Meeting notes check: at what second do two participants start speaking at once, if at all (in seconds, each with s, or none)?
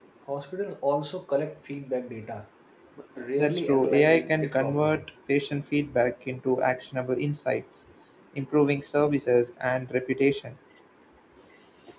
3.4 s